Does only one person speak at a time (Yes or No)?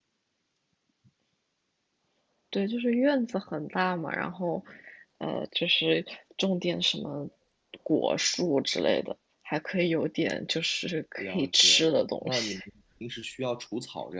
No